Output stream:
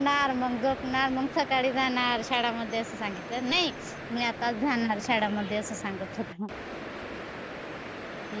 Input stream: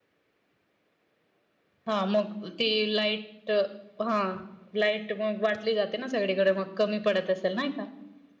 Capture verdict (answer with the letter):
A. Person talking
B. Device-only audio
A